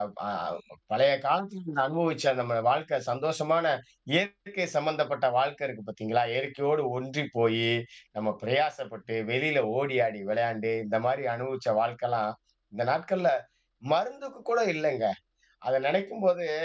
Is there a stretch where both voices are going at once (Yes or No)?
No